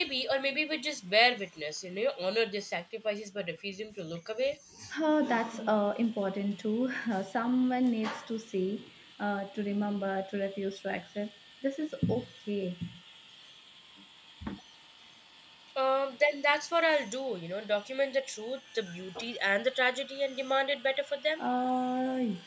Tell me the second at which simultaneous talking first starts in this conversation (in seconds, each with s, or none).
none